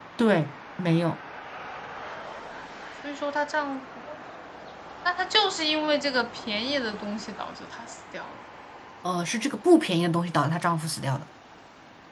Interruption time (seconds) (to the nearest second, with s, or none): none